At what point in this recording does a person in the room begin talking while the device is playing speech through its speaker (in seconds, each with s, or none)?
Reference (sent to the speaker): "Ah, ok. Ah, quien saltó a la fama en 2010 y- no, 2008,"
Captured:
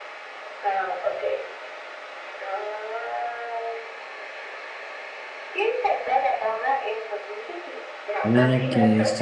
8.2 s